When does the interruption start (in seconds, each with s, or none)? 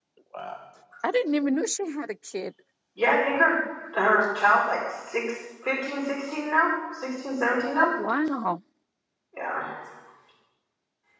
none